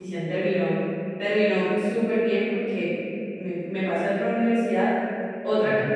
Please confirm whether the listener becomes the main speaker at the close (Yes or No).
No